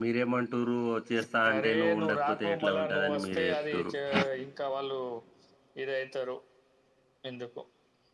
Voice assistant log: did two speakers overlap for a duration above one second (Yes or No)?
Yes